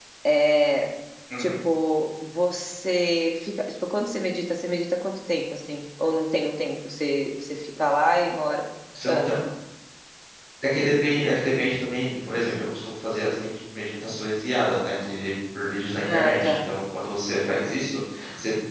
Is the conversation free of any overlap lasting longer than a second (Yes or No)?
Yes